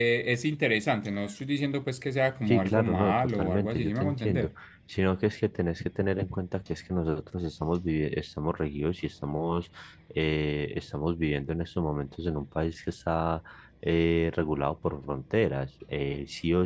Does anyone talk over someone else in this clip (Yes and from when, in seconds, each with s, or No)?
Yes, from 2.5 s